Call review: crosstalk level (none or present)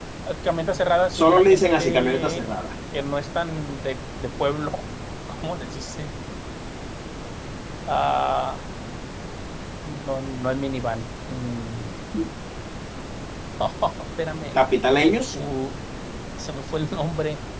present